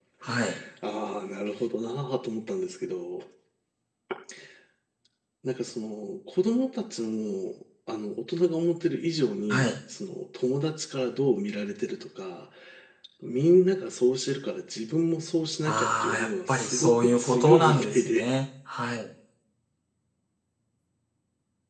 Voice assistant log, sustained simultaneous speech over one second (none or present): present